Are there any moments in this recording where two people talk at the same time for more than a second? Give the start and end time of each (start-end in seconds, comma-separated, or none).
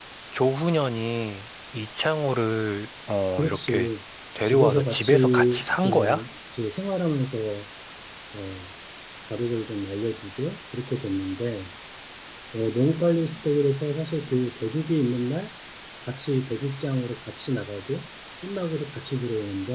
4.5-6.2